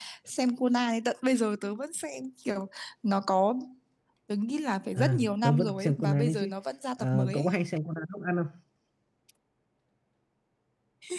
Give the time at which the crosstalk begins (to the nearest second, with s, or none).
5 s